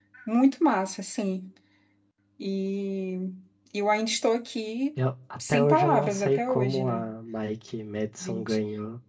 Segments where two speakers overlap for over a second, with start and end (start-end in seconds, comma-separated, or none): 5.5-7.0